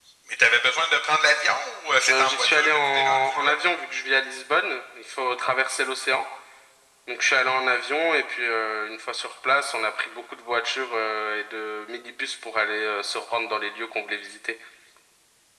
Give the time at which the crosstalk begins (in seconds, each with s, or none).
2.0 s